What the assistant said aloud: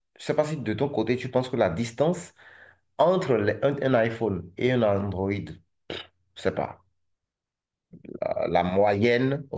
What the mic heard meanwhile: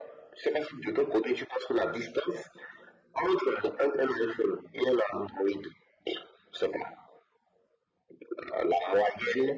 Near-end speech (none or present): none